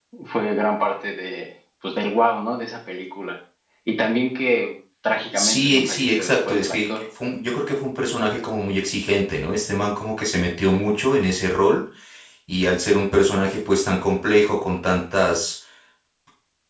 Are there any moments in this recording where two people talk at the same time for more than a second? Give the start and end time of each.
5.3-6.8

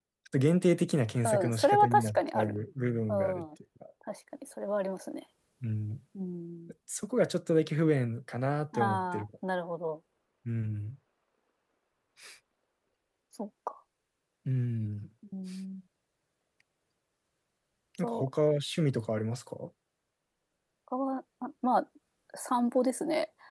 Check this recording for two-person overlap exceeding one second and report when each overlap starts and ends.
1.2-2.6

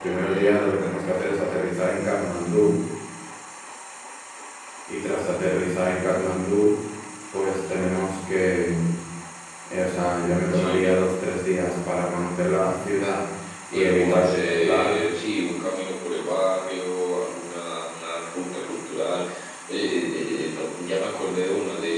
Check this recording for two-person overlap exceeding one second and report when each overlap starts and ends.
13.7-15.0

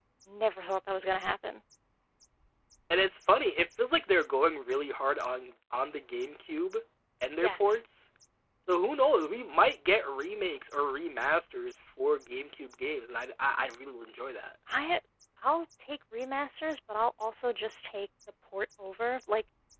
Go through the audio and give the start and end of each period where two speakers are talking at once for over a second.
none

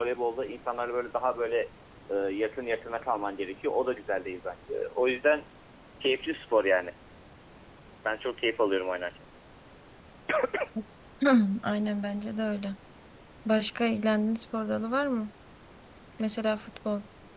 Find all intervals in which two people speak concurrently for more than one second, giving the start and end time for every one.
none

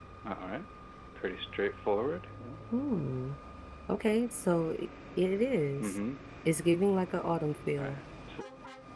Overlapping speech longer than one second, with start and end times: none

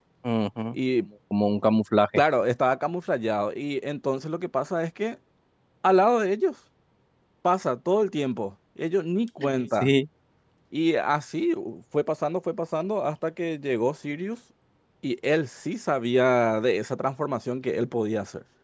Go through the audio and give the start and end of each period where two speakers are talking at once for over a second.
none

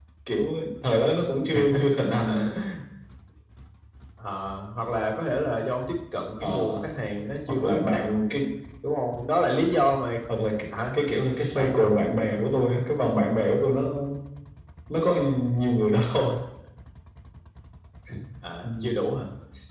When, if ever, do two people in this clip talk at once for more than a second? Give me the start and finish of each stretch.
none

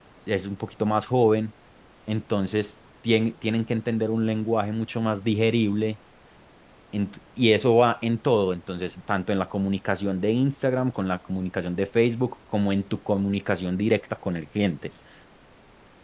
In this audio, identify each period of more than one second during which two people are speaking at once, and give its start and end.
none

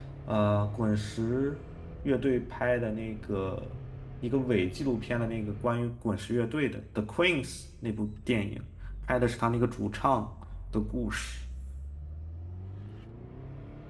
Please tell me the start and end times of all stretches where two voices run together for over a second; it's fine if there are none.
none

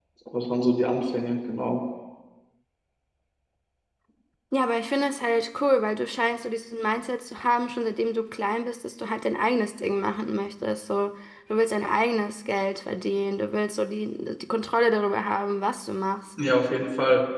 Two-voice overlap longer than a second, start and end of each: none

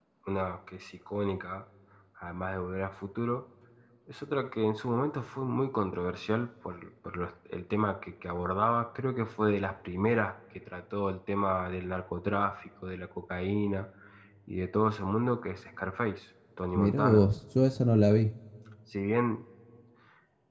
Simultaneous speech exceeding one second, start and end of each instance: none

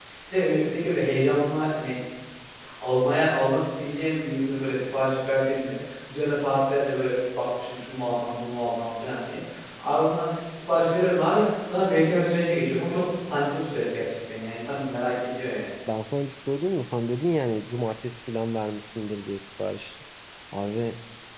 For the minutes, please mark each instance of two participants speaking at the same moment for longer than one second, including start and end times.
none

